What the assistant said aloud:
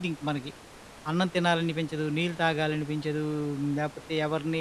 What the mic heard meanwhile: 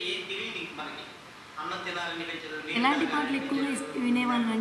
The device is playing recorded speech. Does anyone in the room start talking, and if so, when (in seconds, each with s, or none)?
2.8 s